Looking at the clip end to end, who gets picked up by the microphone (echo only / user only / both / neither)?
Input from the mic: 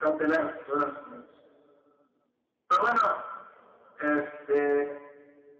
echo only